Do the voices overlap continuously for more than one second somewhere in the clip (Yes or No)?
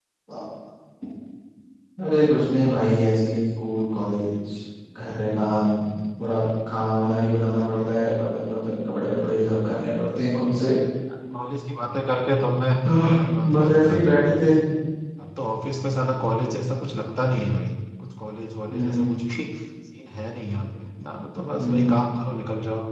Yes